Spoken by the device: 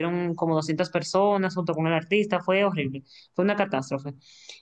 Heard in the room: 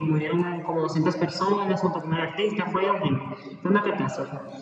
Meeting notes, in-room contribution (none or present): none